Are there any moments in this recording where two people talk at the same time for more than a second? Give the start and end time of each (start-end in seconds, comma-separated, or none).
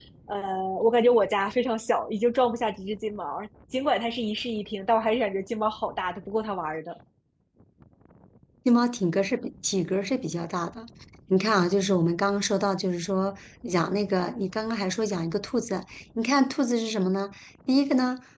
none